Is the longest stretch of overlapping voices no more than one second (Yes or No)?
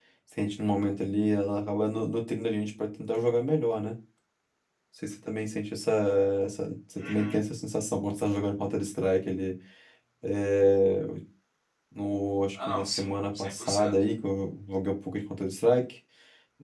No